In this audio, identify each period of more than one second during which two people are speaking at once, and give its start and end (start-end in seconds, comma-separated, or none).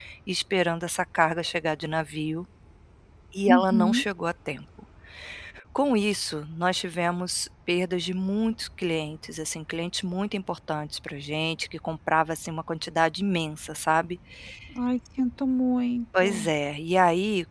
none